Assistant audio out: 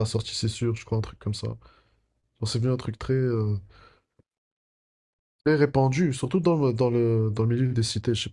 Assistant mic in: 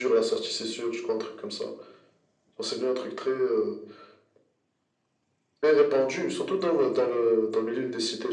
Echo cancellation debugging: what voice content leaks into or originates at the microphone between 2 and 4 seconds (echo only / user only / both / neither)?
echo only